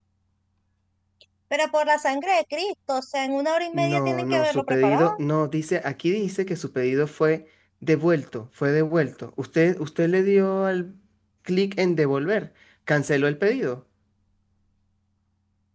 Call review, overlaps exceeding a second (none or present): present